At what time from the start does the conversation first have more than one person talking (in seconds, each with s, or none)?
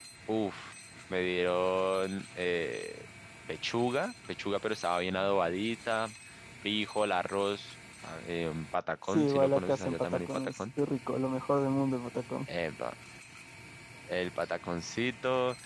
9.1 s